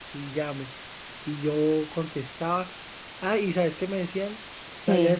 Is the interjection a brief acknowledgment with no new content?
Yes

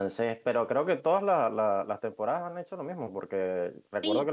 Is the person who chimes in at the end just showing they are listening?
Yes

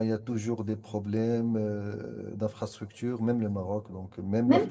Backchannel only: No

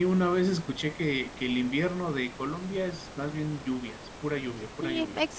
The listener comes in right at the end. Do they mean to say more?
Yes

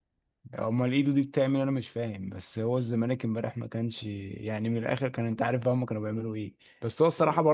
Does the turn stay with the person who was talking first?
Yes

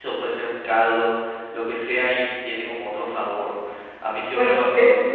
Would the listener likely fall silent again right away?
No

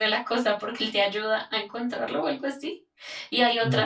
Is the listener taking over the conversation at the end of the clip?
No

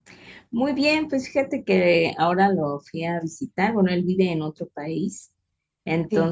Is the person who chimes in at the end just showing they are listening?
Yes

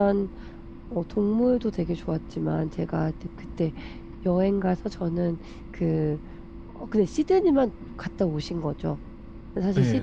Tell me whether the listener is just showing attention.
Yes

